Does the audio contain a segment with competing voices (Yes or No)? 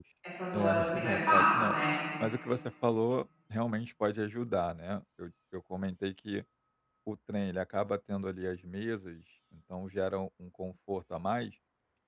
Yes